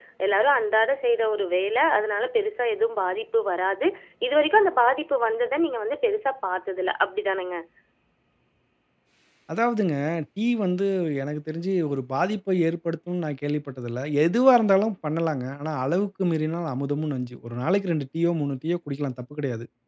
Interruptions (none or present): none